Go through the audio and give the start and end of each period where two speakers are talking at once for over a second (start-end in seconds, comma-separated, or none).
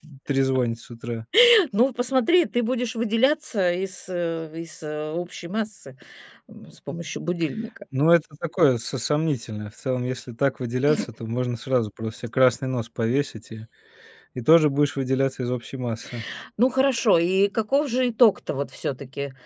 none